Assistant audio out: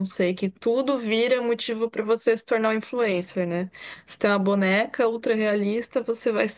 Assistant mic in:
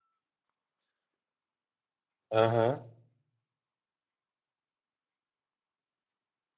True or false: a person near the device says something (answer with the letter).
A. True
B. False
A